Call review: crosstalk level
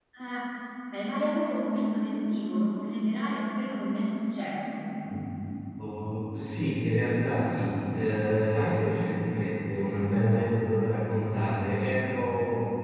none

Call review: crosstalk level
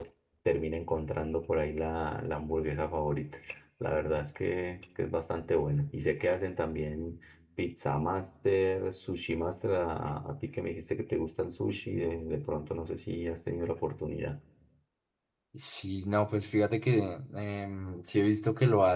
none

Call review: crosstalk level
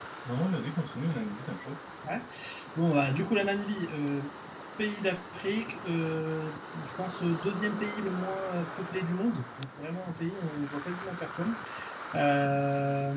none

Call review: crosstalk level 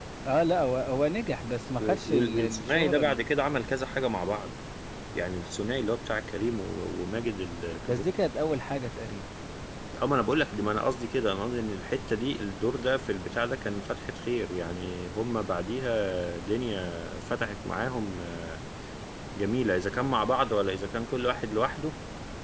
present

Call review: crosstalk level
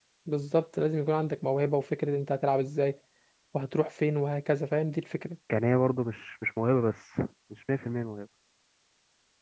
none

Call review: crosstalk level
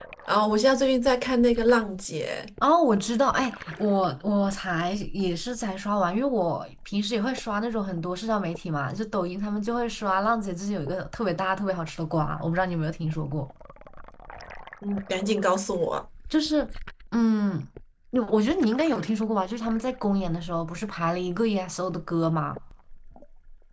none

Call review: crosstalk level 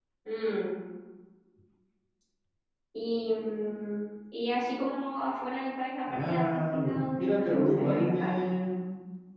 present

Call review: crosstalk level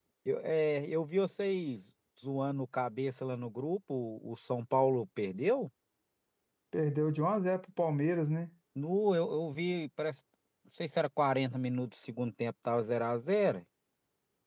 none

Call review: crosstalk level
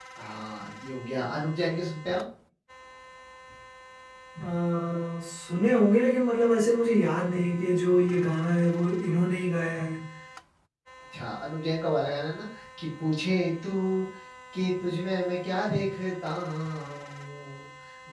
none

